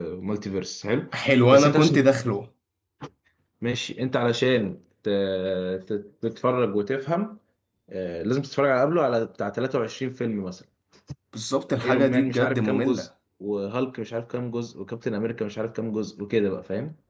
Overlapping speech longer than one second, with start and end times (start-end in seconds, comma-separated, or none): 11.7-13.1